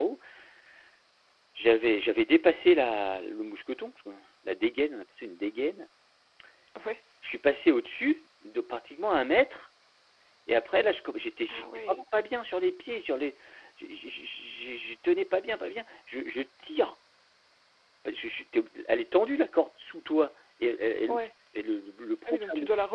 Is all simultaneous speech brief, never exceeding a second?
Yes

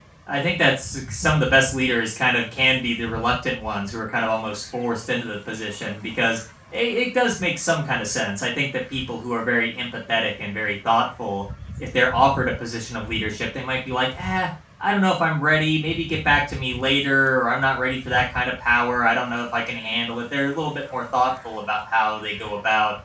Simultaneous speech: No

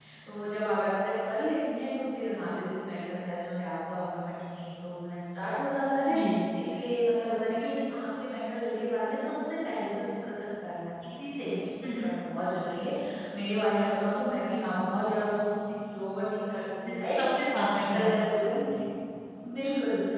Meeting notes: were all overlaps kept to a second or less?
Yes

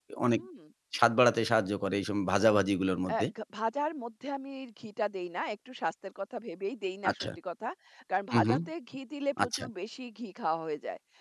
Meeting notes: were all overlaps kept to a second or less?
Yes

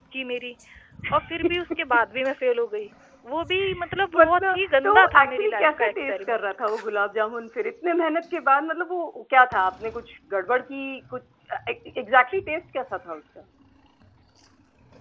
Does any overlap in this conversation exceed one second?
Yes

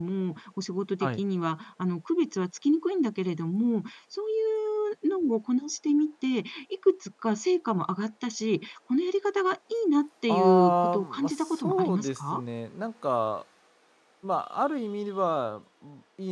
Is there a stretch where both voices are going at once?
Yes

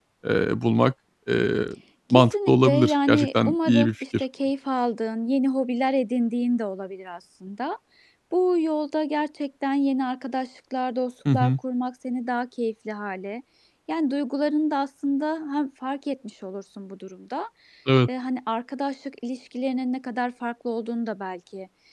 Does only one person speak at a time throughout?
No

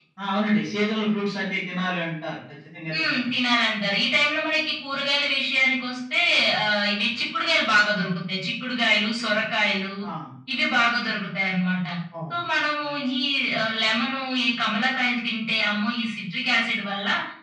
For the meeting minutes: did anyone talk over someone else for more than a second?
No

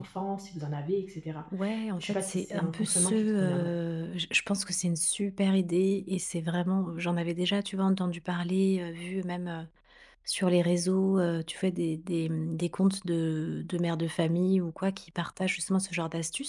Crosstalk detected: Yes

